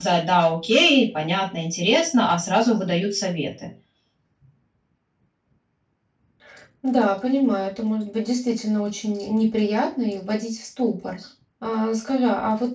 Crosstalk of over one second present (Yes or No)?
No